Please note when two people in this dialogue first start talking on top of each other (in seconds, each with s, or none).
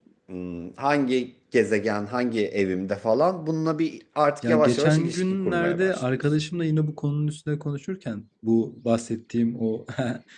4.4 s